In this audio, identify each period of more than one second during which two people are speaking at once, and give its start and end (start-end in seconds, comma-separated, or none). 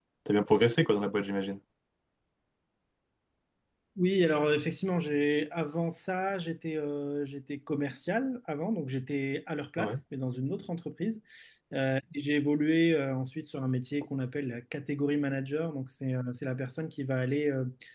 none